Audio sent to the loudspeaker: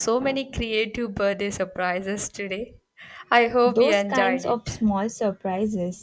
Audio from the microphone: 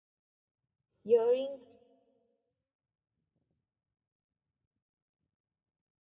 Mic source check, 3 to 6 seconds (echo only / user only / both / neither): neither